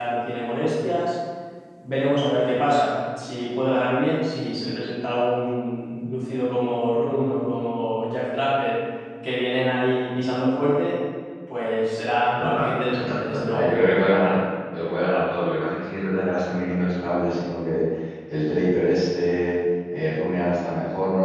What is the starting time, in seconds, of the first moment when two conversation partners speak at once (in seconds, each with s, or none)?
12.4 s